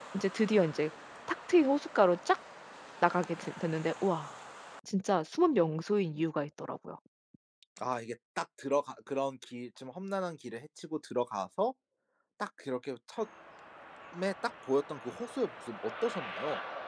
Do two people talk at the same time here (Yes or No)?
No